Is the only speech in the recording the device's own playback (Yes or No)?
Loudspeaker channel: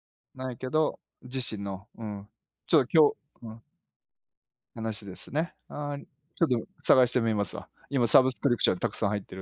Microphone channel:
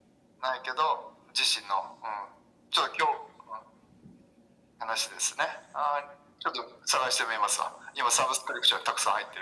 Yes